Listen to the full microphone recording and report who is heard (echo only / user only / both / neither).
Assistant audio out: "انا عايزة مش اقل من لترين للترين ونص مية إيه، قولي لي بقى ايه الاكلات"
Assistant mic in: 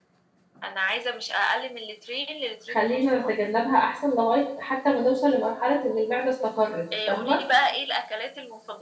both